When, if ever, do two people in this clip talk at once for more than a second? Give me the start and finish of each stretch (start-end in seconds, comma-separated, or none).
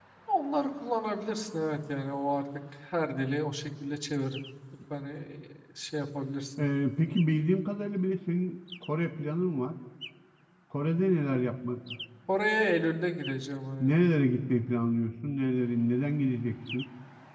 none